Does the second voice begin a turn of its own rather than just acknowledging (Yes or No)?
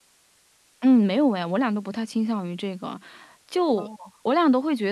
No